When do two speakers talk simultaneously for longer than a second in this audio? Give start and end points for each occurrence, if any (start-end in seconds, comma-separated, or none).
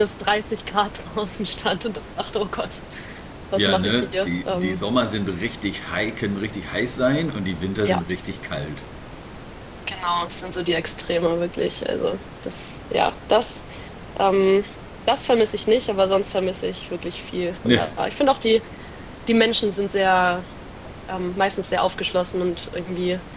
3.5-4.8